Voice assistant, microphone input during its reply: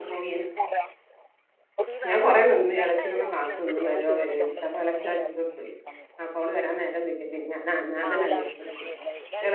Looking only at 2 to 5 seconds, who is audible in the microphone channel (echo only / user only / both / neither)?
both